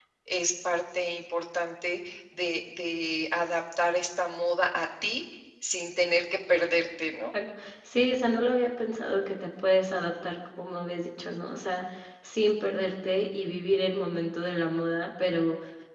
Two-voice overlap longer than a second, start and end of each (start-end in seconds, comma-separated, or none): none